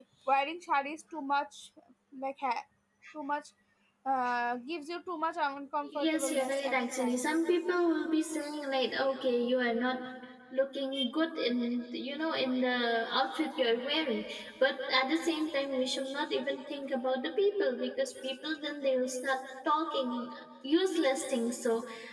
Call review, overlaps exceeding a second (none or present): present